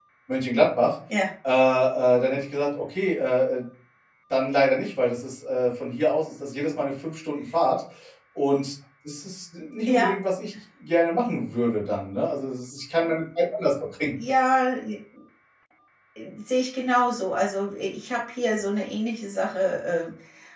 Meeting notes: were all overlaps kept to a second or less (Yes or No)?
Yes